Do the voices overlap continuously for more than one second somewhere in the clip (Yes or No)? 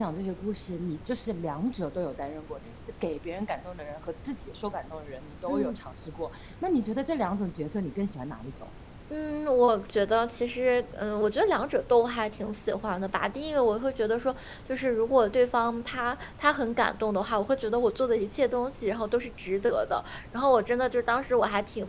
No